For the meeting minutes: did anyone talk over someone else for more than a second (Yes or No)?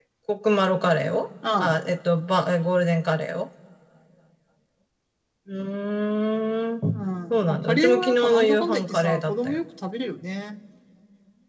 Yes